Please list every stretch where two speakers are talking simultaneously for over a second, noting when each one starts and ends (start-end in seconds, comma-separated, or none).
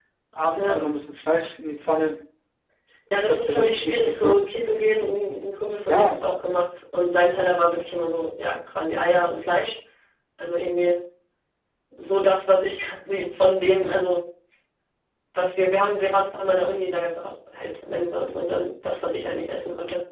3.1-4.4